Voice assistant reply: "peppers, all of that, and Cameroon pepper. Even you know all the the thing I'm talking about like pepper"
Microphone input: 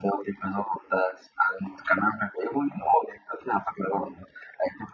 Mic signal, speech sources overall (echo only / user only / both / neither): echo only